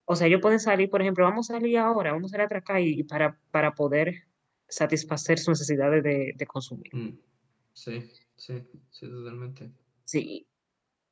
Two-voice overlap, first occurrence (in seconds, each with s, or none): none